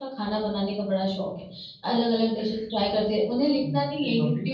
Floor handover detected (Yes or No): No